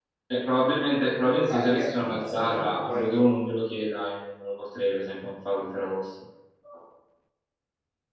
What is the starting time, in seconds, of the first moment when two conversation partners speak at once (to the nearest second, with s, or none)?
1 s